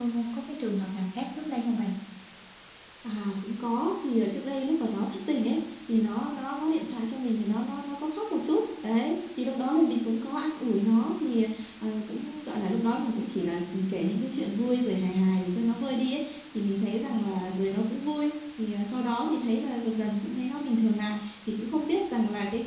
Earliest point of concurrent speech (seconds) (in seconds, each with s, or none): none